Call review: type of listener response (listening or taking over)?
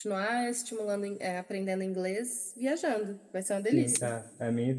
taking over